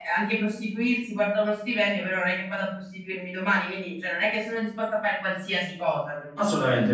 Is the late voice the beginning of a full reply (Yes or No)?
Yes